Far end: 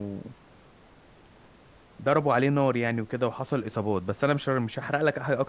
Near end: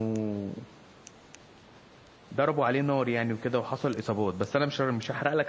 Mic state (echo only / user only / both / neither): echo only